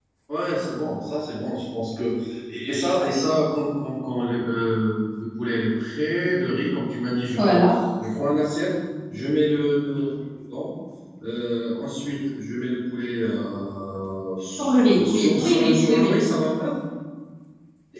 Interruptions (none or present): present